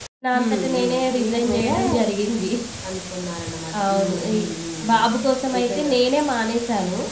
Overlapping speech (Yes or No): Yes